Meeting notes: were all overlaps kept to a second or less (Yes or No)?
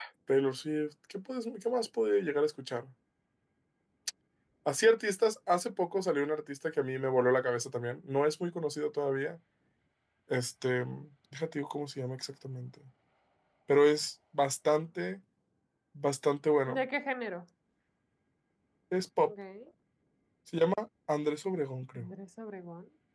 Yes